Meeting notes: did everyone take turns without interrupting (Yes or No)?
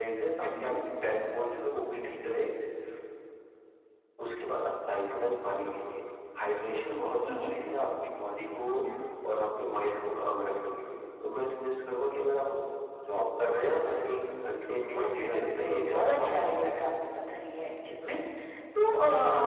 No